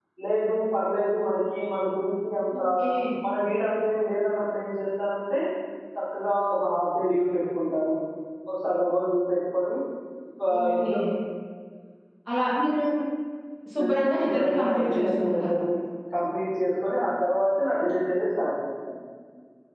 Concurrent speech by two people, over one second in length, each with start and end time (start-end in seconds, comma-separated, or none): 13.8-15.6